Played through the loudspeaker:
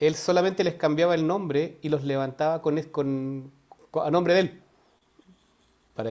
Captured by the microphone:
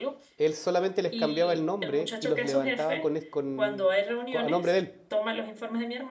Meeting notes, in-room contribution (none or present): present